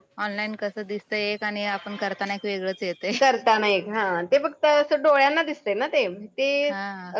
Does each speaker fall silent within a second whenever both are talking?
Yes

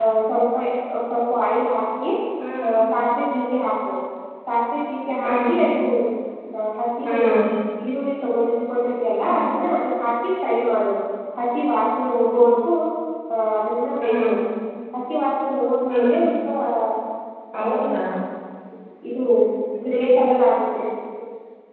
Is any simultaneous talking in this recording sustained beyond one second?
No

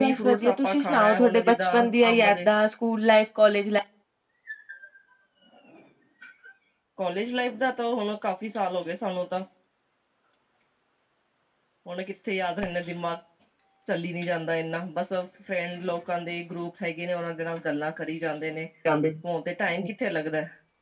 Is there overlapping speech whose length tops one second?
Yes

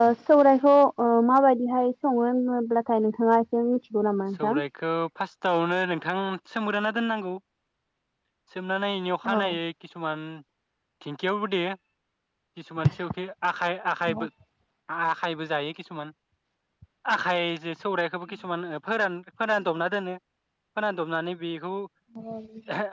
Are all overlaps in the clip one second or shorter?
Yes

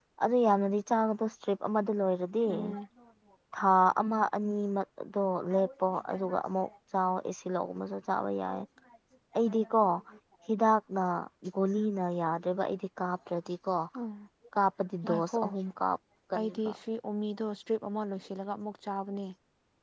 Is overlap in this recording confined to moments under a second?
Yes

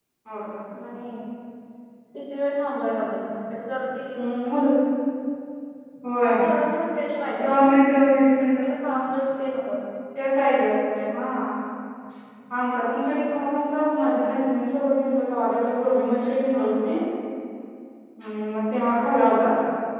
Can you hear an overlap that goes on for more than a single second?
No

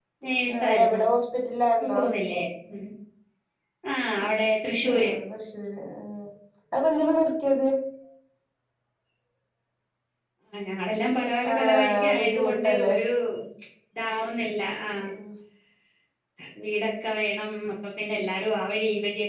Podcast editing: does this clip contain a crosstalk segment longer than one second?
Yes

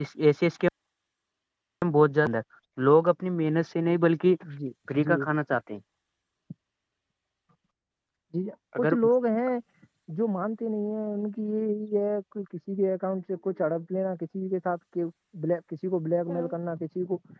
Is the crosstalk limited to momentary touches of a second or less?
Yes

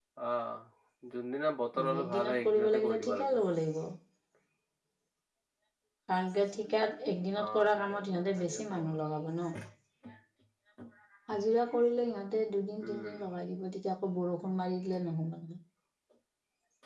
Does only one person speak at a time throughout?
No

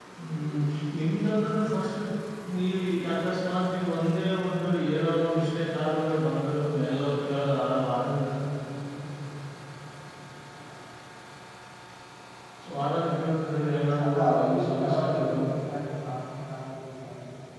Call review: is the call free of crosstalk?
No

